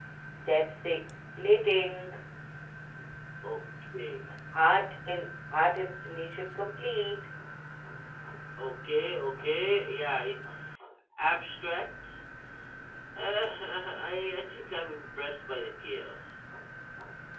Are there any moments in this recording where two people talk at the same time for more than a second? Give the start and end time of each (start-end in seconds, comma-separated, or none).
none